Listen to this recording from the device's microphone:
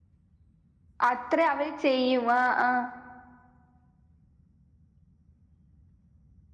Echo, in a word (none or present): none